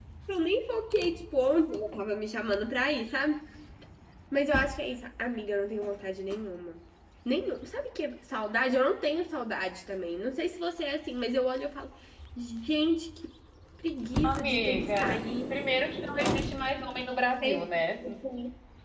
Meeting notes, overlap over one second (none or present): present